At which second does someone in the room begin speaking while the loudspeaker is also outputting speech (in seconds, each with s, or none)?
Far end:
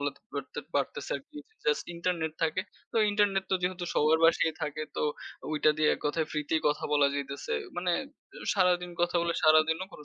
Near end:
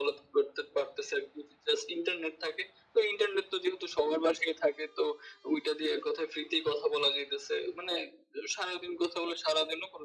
none